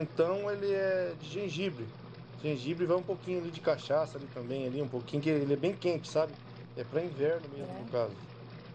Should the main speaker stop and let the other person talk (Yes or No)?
No